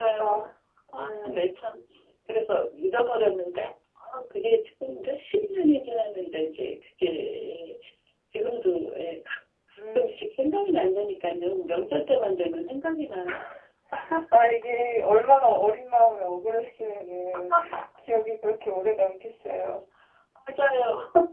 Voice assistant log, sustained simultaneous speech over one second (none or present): none